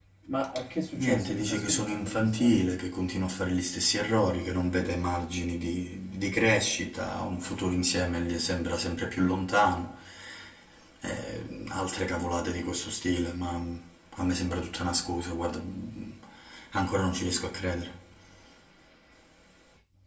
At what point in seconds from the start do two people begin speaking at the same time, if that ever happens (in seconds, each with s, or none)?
1.0 s